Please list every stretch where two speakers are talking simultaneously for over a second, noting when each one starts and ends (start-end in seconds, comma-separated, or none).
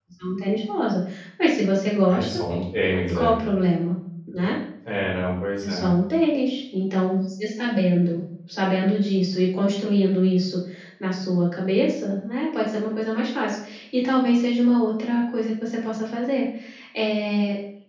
none